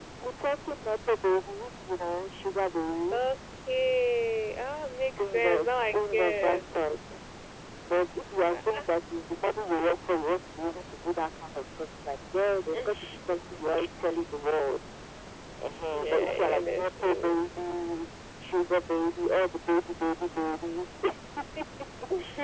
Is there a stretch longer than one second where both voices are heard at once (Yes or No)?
Yes